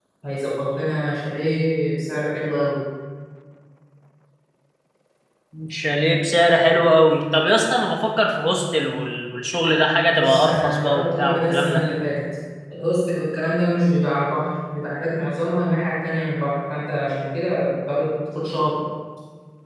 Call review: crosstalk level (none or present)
present